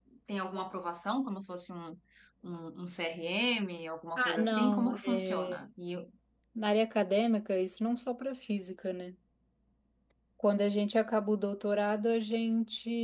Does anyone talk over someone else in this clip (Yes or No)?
Yes